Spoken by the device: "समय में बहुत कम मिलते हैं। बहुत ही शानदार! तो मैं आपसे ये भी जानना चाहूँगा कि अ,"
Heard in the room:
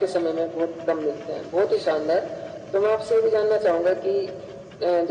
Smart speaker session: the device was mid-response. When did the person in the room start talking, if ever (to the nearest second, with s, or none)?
none